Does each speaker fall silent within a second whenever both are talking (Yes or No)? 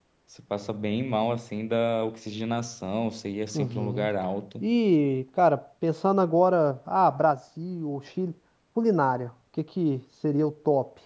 Yes